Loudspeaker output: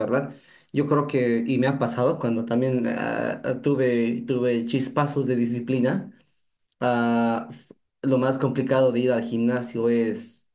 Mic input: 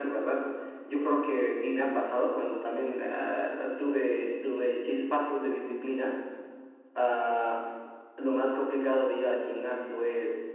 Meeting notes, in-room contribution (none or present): none